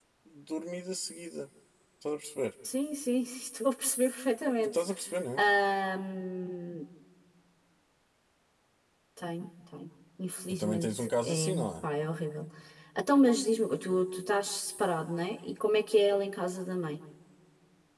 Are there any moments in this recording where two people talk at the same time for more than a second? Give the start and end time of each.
10.5-11.9

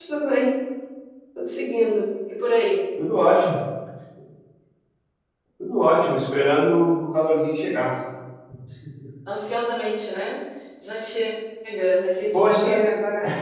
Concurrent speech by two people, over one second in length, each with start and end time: none

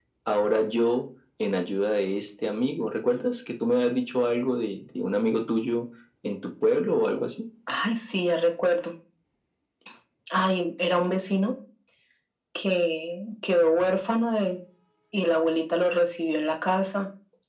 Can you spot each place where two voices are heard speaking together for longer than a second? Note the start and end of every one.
none

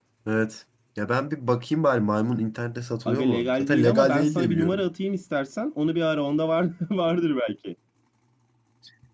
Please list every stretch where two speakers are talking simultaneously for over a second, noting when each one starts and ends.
3.0-4.8

